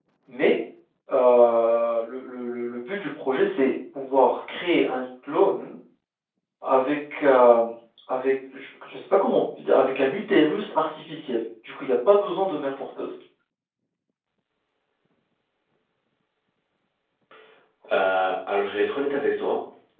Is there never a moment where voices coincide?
Yes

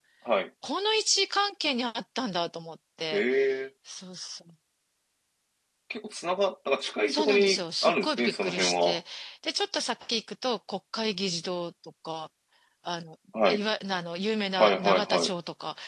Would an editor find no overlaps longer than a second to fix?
No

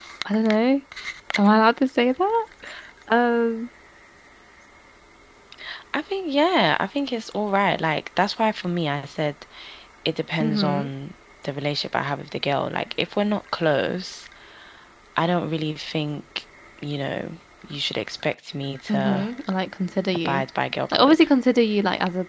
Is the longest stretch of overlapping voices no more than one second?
Yes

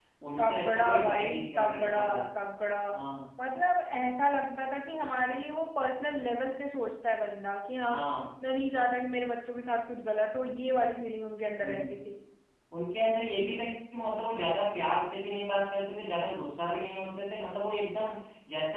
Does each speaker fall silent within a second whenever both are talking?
No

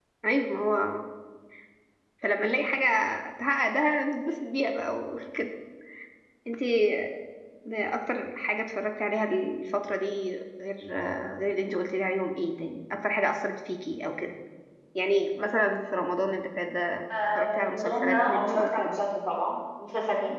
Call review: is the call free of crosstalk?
No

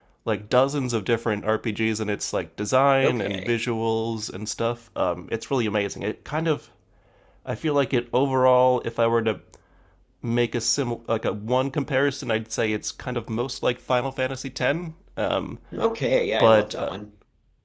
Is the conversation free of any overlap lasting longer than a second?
Yes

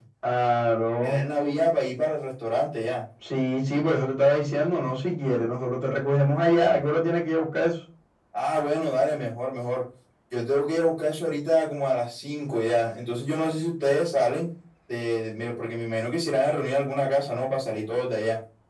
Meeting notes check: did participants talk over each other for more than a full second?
No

